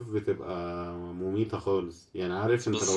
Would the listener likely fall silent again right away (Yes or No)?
Yes